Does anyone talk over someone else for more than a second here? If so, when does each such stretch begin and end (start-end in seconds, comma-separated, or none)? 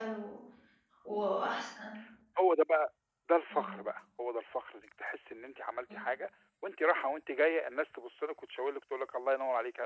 none